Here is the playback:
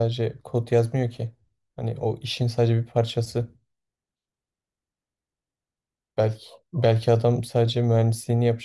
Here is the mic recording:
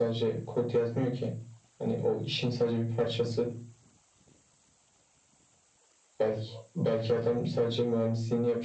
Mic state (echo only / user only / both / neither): echo only